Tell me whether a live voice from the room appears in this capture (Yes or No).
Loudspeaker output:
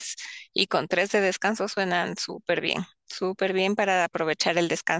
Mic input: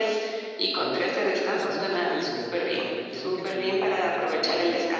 Yes